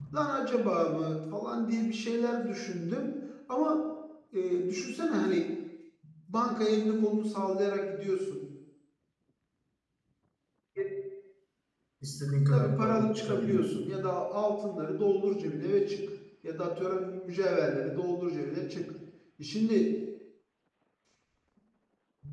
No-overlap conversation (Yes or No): No